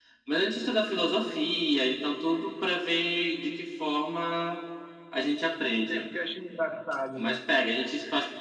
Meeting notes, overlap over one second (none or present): none